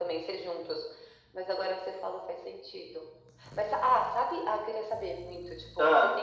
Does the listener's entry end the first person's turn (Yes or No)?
No